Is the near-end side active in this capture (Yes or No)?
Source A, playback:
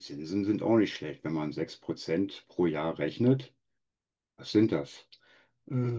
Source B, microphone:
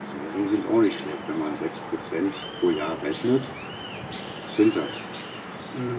No